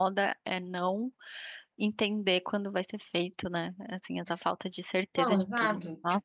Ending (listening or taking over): taking over